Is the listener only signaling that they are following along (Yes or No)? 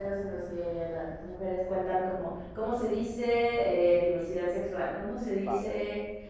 Yes